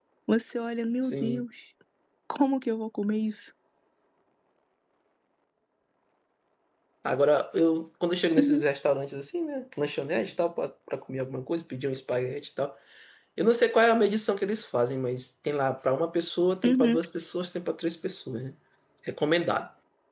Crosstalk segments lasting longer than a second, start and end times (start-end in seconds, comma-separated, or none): none